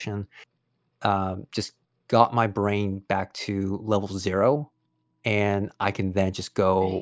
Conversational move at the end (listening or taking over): listening